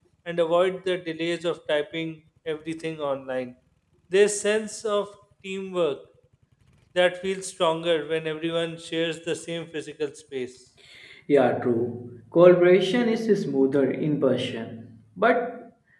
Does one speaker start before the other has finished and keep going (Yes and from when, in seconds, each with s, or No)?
No